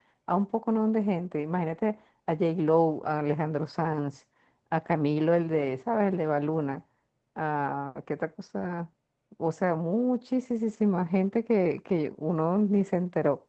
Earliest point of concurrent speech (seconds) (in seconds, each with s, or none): none